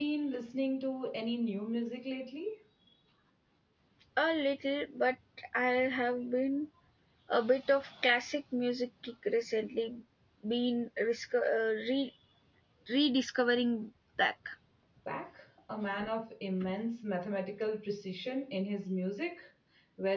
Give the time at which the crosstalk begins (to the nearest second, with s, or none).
none